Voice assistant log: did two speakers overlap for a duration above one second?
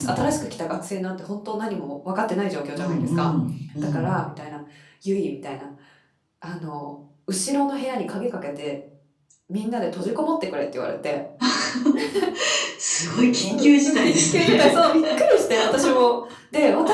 Yes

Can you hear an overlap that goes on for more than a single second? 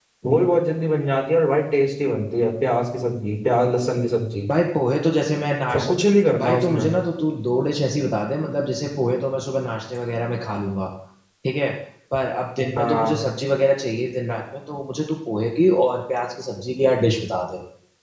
No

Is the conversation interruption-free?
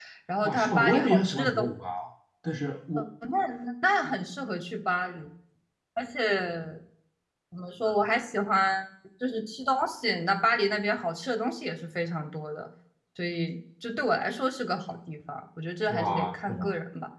No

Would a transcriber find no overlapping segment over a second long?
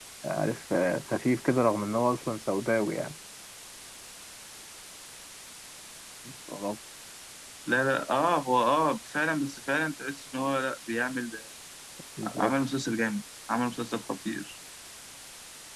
Yes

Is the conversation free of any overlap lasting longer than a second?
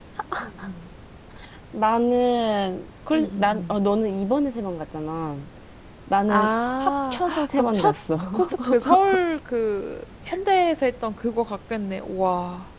No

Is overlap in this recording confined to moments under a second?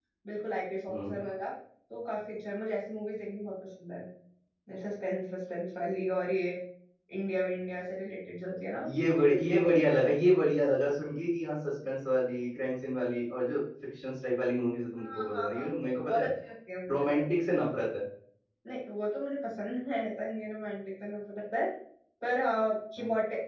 No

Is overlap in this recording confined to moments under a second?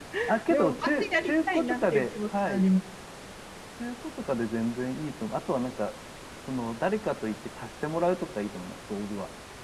No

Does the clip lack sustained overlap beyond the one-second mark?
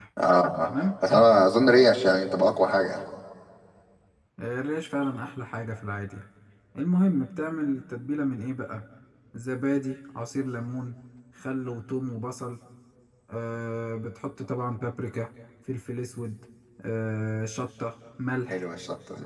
Yes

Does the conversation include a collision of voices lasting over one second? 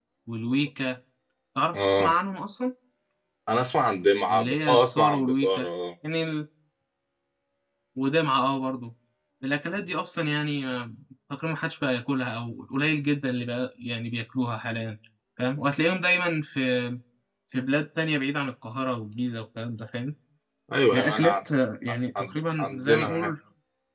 Yes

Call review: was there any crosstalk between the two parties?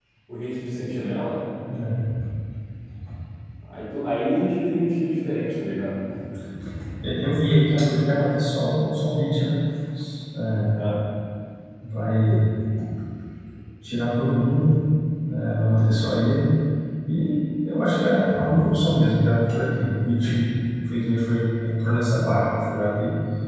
No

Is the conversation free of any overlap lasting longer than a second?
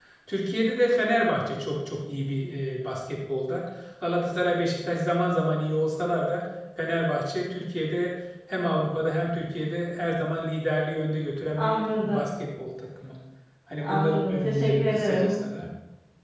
No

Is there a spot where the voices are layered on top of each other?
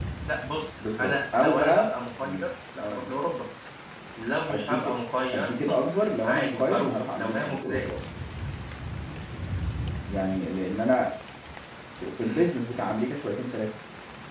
Yes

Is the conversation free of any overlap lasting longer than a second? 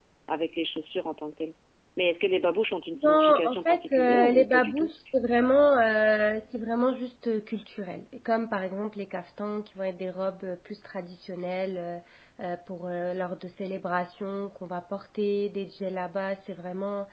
No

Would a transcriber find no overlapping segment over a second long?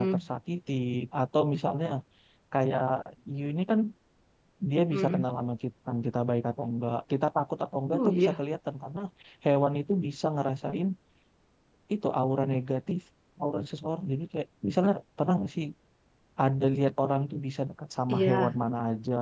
Yes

